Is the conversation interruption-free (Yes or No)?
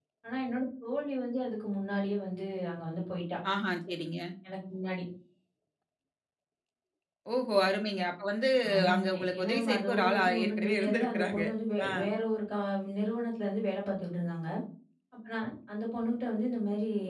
No